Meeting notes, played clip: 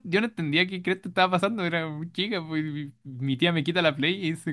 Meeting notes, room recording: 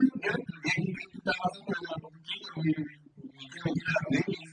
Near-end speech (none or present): none